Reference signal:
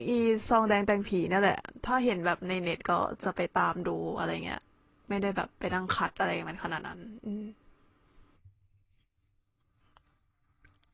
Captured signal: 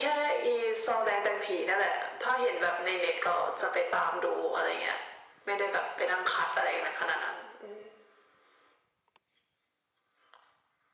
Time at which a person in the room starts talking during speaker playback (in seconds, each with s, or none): none